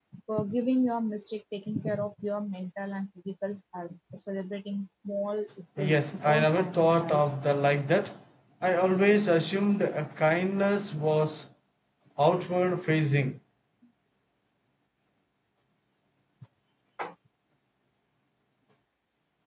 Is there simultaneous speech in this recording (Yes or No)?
Yes